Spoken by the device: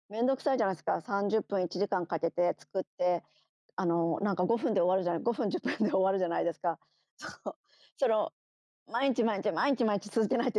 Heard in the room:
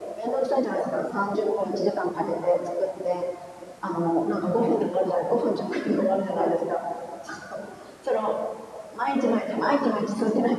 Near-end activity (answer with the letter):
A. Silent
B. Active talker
A